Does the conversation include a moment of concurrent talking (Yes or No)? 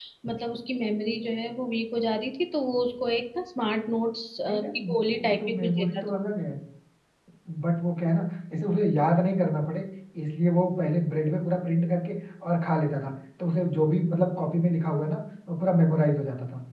Yes